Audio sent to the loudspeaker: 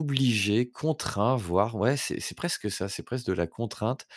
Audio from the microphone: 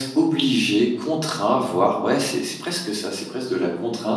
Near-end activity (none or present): none